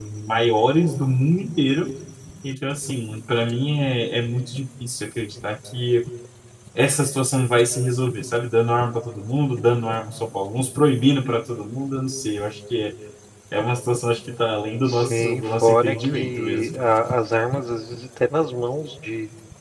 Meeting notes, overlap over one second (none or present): present